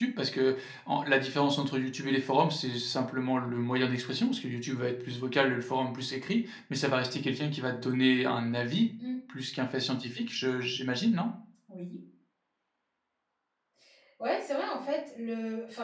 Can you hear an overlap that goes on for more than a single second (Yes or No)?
No